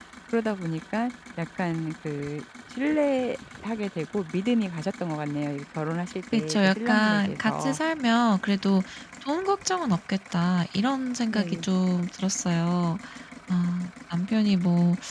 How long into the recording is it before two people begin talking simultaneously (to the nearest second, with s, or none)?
6 s